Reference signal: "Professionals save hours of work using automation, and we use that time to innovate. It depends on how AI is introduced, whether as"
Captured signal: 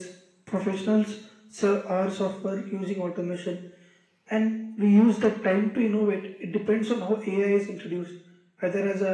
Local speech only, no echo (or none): none